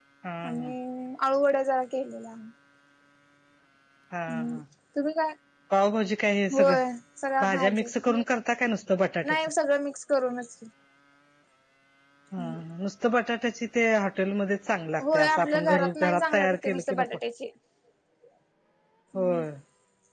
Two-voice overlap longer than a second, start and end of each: 15.1-17.1

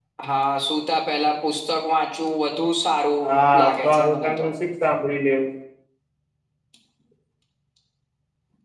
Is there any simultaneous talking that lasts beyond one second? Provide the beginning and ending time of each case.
3.2-4.5

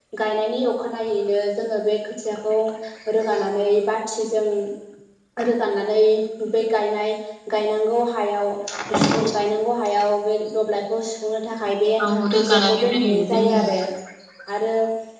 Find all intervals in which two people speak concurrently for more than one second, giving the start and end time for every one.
12.3-13.6

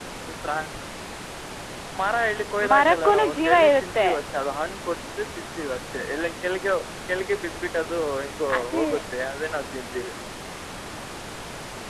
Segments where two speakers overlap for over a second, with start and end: 2.7-4.1

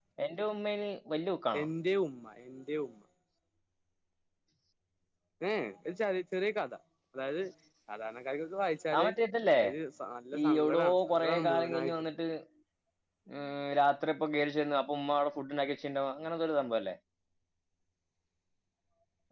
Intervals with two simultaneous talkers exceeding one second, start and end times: 10.4-11.9

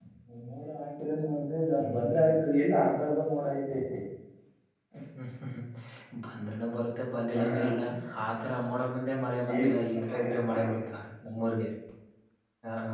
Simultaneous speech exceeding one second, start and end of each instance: 9.5-10.8

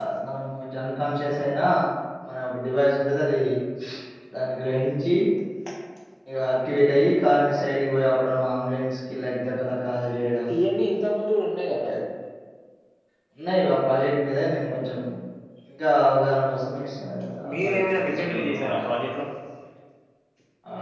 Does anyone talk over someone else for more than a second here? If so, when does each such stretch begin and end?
17.5-18.8

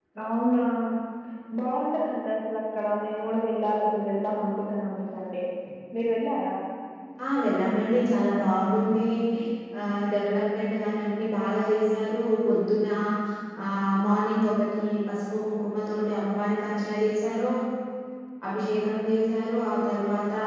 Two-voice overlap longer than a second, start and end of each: none

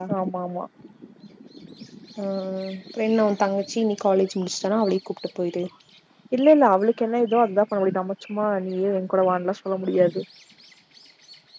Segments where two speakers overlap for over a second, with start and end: none

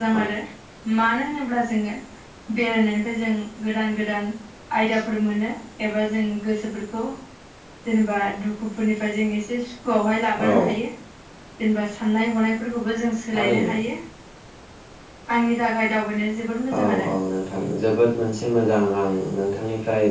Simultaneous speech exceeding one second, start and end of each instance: none

